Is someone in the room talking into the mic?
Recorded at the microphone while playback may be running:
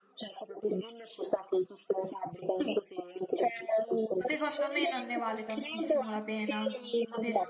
Yes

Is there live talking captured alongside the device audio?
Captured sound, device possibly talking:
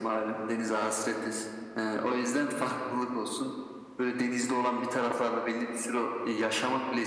No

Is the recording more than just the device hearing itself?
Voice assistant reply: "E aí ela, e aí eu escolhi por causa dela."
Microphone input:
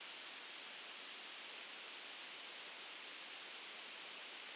No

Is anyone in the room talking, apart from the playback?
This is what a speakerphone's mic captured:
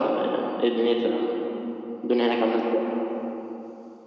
No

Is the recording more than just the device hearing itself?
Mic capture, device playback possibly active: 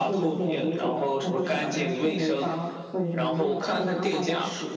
No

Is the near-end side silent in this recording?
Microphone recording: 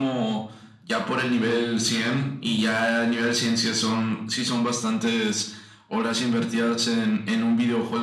Yes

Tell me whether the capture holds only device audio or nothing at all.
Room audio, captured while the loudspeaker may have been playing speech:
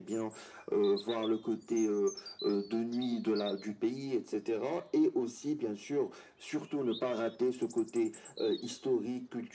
Yes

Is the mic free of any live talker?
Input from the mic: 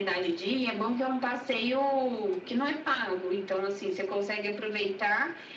Yes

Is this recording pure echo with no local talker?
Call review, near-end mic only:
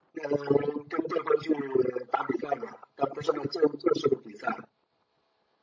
Yes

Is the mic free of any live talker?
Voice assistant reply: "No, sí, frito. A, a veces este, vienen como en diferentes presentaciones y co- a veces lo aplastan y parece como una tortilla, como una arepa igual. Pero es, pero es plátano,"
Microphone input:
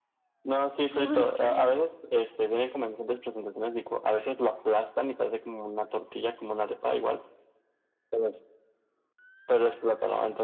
No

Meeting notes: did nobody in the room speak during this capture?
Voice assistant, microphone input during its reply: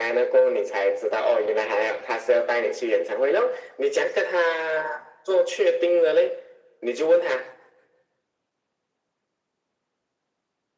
Yes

